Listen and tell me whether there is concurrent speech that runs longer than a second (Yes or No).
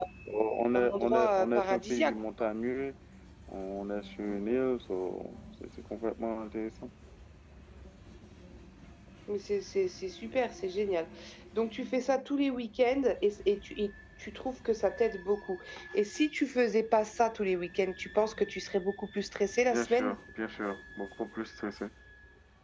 Yes